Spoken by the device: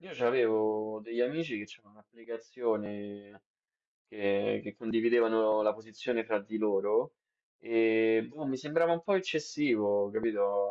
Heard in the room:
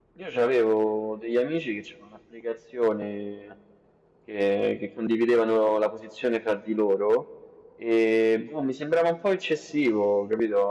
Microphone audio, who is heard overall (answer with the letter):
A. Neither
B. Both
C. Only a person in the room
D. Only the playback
D